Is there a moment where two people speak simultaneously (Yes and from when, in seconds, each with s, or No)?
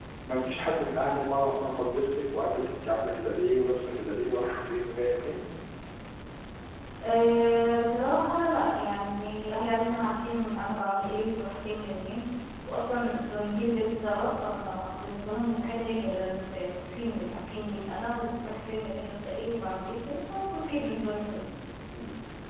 No